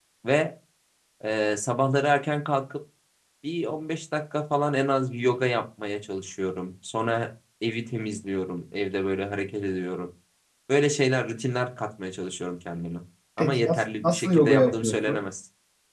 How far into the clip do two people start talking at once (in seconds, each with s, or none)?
13.4 s